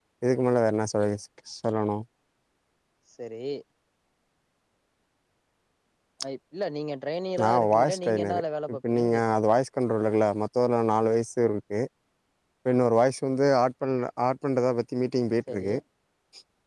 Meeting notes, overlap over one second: present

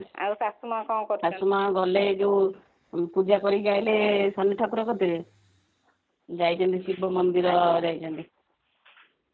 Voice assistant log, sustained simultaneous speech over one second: none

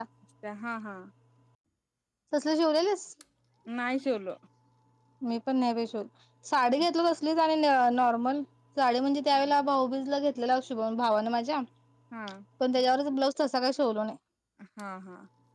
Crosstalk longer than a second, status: none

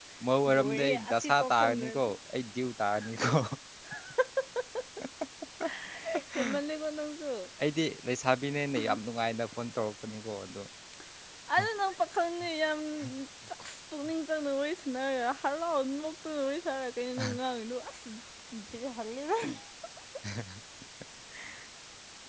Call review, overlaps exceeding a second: present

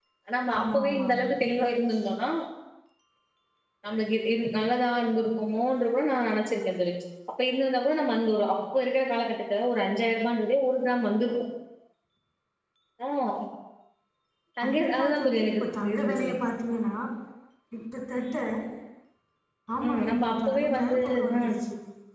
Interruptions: present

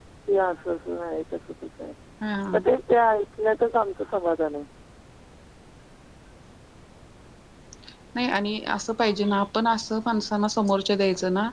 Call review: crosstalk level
none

